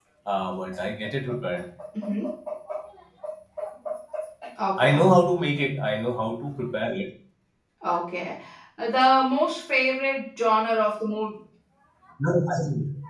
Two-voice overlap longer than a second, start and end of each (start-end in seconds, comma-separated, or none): none